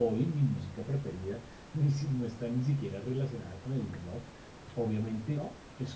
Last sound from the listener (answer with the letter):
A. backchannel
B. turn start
A